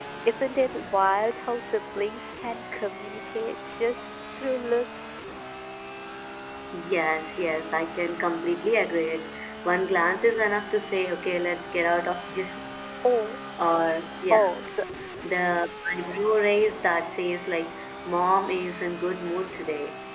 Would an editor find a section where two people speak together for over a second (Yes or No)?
No